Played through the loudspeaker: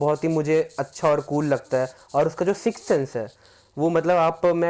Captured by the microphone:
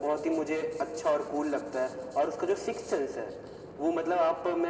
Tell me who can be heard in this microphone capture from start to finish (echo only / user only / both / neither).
echo only